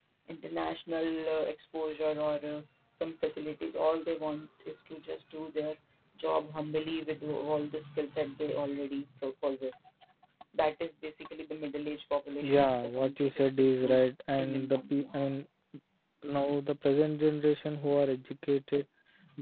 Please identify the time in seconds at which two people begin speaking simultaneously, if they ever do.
12 s

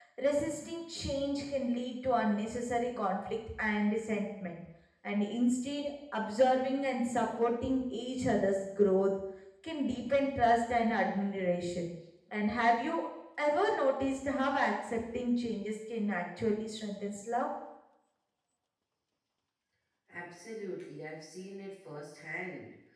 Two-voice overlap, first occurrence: none

